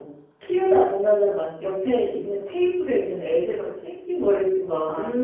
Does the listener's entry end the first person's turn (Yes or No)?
No